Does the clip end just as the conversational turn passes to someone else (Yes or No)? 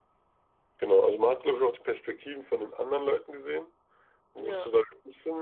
No